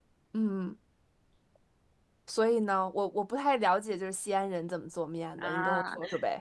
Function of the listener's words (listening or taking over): taking over